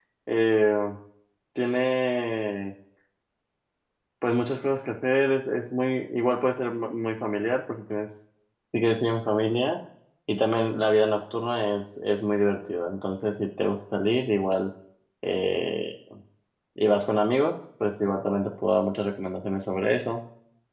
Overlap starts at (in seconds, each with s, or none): none